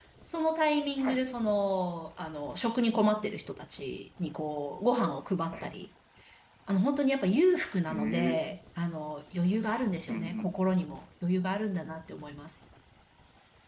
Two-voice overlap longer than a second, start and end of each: none

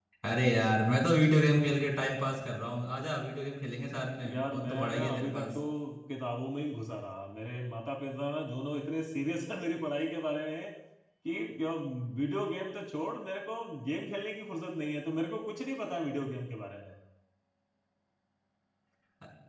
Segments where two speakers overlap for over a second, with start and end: 4.2-5.5

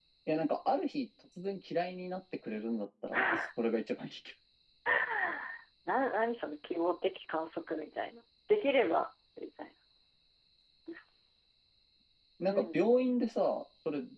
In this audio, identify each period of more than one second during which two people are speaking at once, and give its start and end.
none

